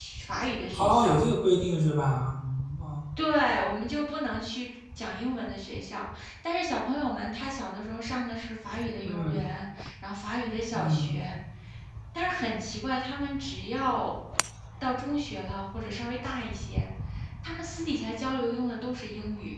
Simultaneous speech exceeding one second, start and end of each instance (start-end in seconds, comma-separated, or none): none